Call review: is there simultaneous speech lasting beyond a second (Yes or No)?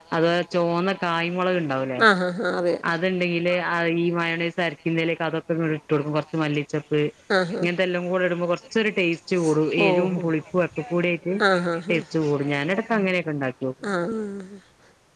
No